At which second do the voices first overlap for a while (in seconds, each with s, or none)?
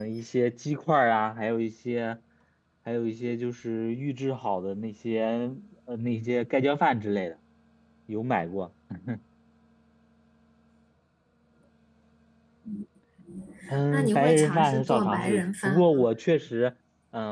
13.9 s